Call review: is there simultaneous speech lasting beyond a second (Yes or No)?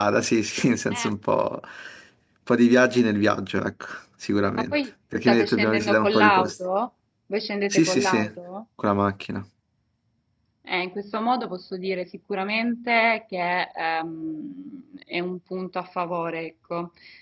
Yes